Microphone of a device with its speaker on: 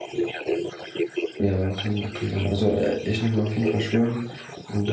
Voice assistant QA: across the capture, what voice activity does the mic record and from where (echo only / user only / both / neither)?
both